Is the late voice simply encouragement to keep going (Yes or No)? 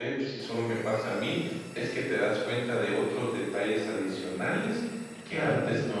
Yes